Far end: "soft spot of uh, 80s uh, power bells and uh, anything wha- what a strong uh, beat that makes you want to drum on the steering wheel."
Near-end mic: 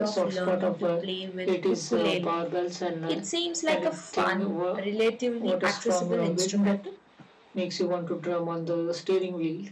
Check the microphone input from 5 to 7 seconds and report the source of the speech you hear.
both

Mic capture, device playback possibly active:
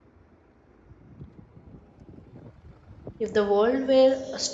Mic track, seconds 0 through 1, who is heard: neither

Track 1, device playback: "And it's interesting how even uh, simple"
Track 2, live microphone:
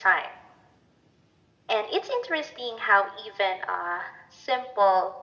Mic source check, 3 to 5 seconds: echo only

